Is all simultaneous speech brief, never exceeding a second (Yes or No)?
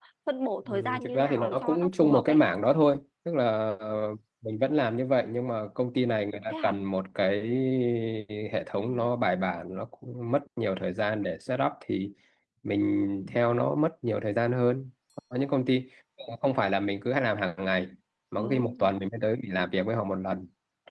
No